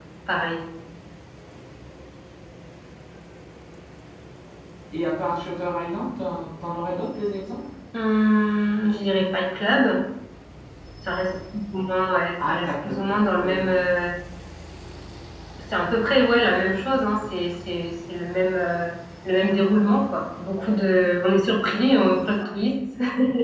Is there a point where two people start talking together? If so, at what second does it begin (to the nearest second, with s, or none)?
12 s